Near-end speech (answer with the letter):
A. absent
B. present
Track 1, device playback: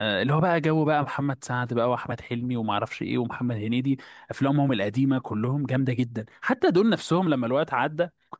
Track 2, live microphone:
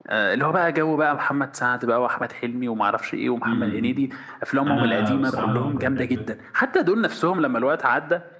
B